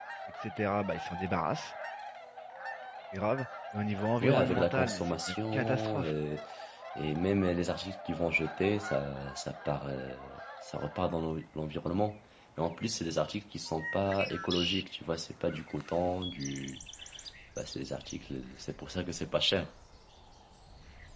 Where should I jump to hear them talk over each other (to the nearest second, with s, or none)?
4 s